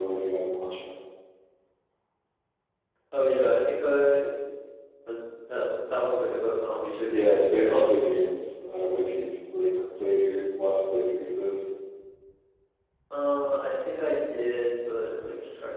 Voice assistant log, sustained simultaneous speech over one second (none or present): none